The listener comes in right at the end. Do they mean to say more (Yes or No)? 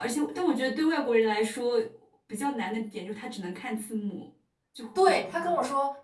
Yes